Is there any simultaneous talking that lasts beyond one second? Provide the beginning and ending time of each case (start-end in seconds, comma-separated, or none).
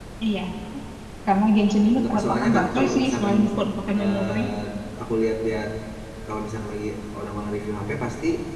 1.9-3.4